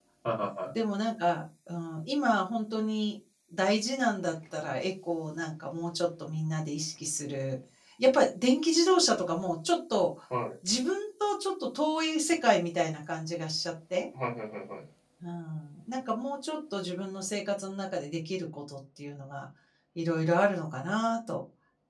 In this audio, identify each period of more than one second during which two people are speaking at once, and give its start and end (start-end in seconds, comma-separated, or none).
none